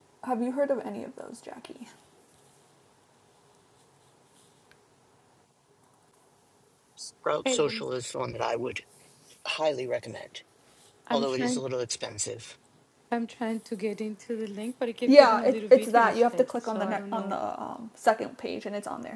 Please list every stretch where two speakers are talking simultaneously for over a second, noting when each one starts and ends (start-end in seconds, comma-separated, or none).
15.1-17.4